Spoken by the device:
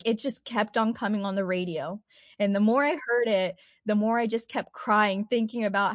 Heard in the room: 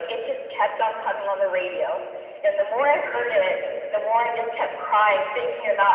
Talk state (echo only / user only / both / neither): echo only